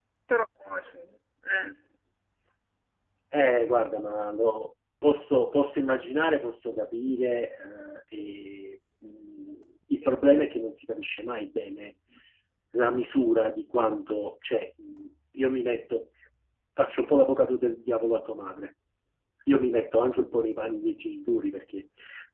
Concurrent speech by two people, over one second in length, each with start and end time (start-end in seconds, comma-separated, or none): none